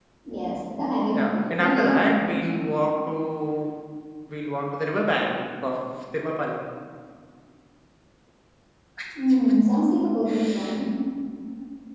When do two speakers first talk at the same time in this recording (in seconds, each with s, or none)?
1.1 s